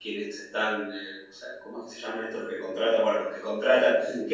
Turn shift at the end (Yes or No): No